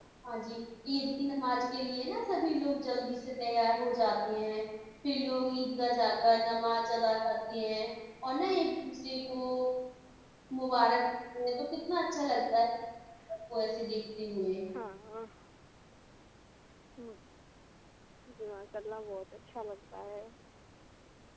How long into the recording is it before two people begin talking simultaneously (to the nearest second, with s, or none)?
none